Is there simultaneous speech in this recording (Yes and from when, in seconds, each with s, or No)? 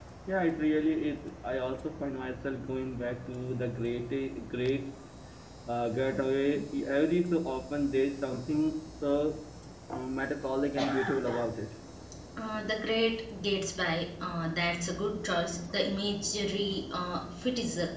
No